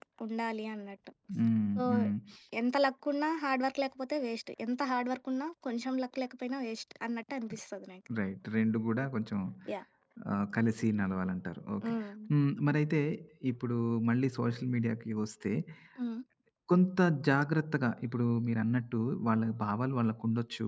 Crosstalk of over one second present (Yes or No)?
No